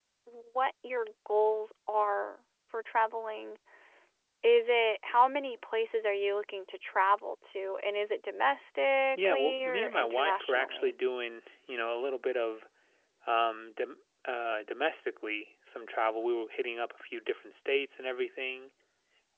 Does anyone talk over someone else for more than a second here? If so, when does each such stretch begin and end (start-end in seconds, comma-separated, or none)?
9.1-10.9